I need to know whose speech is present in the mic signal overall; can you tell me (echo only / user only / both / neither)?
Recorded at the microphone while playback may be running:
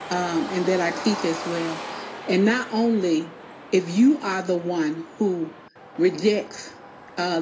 echo only